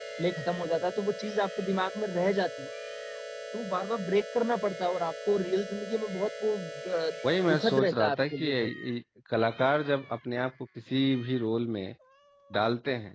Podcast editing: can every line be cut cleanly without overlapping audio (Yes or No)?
No